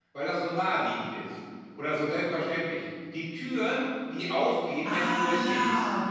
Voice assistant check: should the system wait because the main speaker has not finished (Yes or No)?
No